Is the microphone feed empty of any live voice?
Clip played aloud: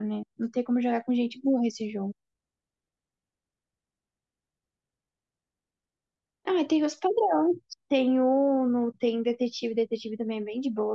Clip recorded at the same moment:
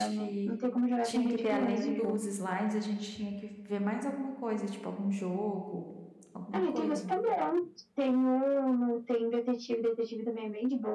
No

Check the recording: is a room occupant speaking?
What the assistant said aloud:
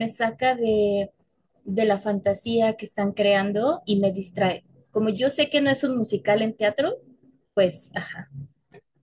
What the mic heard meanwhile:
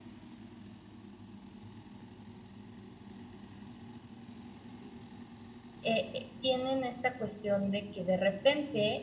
Yes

